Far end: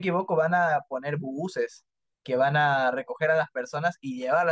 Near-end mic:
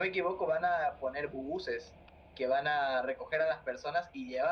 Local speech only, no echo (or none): none